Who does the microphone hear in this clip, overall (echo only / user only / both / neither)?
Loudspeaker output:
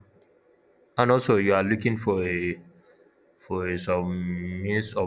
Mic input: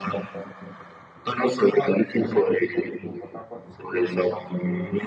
both